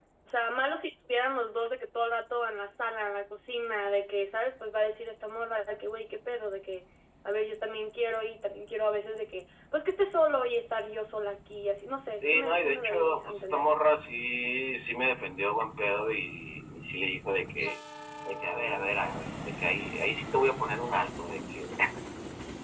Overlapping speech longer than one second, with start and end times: 12.3-13.7

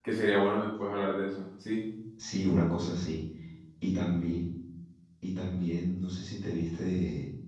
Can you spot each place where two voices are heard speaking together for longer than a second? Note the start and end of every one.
none

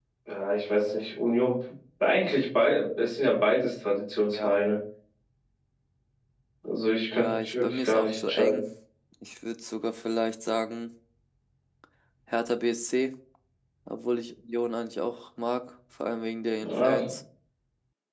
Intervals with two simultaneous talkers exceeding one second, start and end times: 7.1-8.6

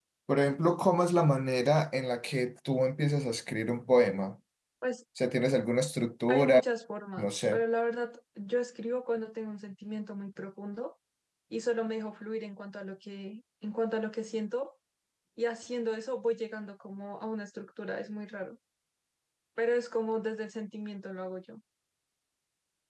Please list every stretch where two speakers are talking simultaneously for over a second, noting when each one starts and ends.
none

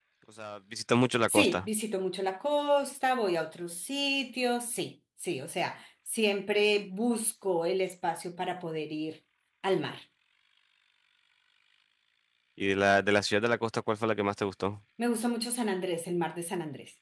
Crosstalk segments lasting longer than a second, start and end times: none

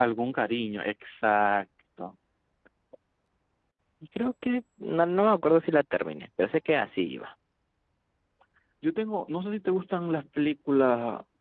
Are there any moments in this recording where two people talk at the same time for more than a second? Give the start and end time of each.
none

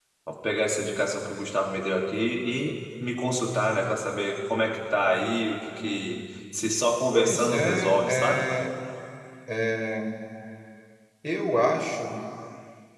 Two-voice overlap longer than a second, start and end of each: 7.1-8.5

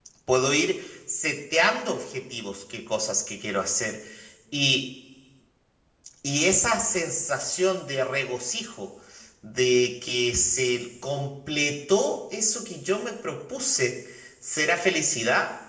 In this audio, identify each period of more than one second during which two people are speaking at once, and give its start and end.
none

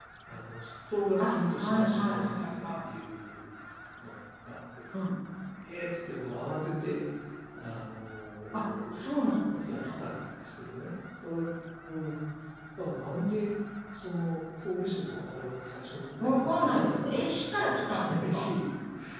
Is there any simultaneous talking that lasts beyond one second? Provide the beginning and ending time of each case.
1.3-2.7, 16.2-18.5

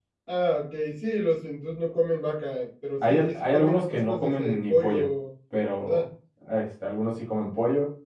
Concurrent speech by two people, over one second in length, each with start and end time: 3.1-5.1

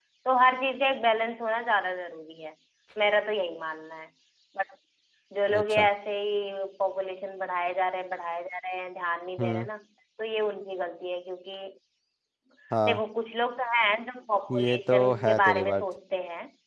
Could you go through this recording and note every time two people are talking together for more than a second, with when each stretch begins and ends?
14.5-15.8

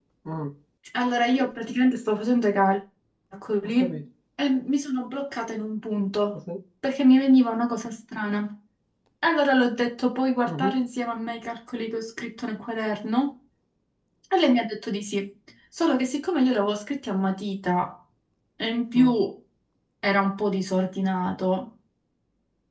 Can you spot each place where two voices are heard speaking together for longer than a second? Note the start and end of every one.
none

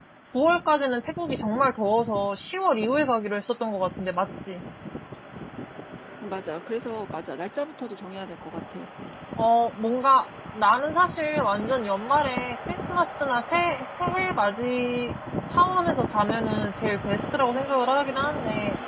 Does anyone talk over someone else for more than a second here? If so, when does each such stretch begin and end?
none

